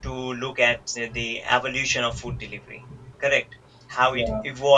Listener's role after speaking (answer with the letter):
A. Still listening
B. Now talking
A